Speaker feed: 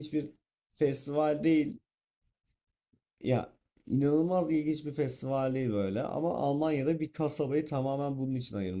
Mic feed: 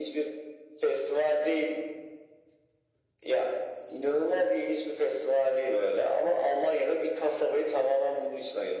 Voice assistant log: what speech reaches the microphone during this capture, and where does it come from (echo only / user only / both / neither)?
echo only